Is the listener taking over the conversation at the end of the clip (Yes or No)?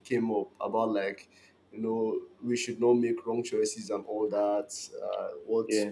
No